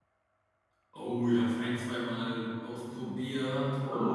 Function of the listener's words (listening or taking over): listening